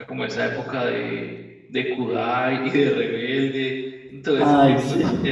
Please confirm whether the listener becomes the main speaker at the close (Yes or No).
No